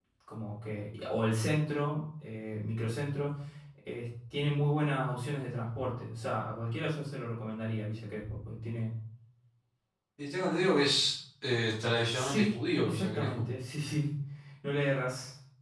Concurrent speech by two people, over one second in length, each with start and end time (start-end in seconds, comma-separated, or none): 12.1-13.5